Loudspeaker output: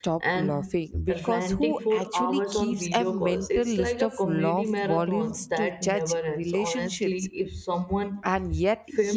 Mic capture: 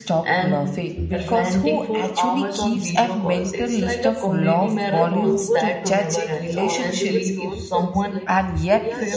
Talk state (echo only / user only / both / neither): both